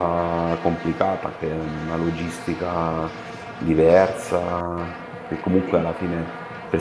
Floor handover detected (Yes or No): No